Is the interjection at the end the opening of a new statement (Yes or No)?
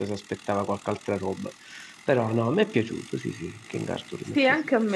Yes